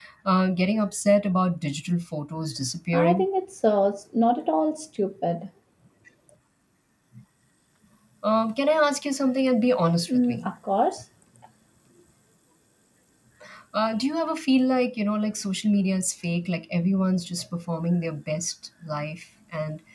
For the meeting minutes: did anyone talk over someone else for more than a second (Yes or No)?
No